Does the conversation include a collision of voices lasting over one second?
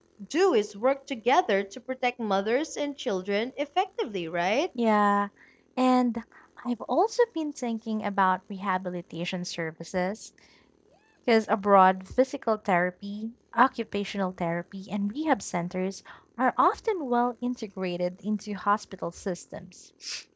No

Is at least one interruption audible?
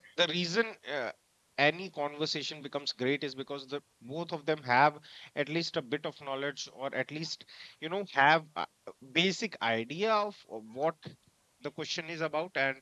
No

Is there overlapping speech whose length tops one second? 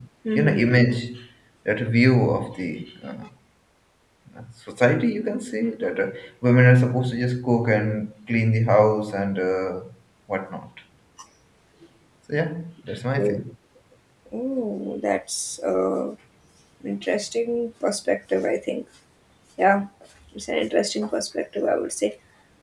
No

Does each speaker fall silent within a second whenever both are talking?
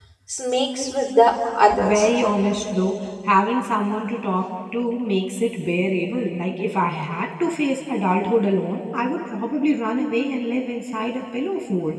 Yes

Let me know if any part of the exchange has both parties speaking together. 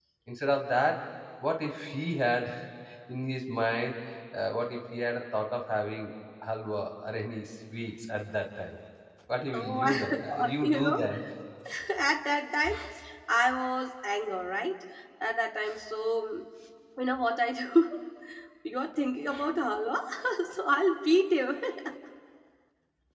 Yes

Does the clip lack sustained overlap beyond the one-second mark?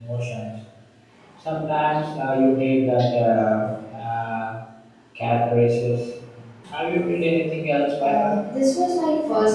Yes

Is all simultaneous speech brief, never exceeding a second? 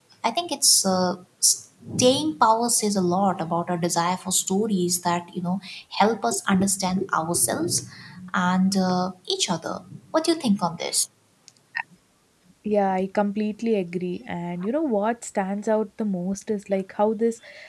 Yes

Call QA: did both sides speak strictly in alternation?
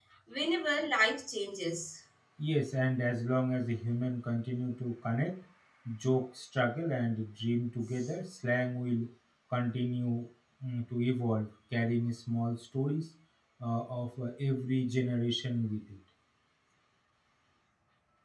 Yes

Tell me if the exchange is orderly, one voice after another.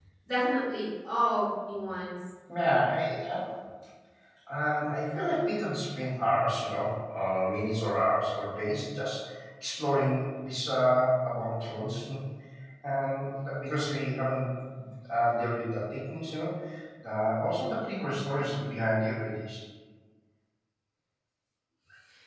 Yes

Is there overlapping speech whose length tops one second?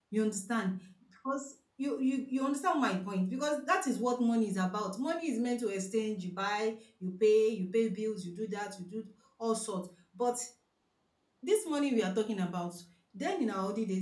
No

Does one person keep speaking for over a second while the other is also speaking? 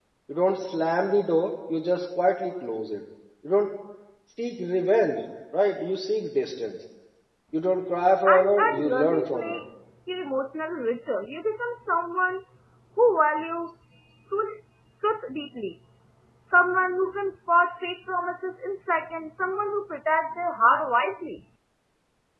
Yes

